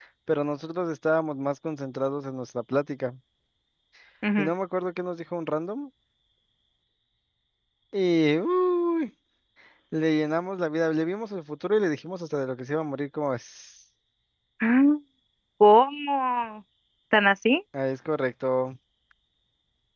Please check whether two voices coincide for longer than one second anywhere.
No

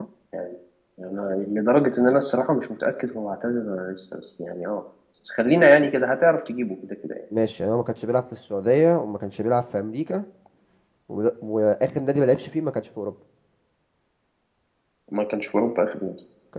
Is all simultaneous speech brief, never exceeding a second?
Yes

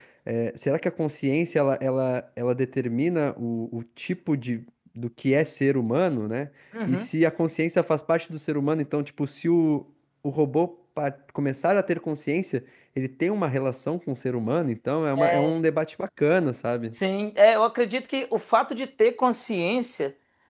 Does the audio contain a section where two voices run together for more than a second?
No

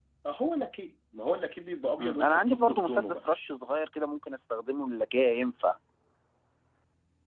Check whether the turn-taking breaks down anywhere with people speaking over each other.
Yes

